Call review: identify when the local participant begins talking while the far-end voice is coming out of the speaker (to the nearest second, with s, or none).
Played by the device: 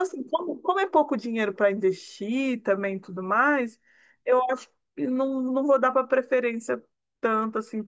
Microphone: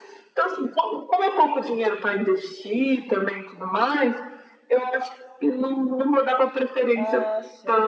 7 s